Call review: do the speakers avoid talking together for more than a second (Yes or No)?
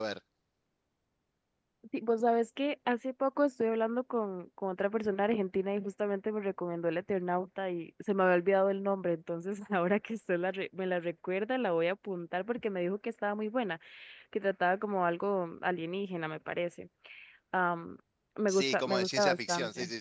No